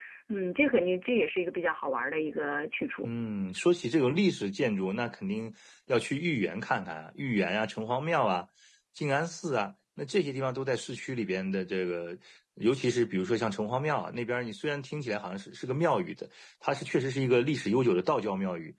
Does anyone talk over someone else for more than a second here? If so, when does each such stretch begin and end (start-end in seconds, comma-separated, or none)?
none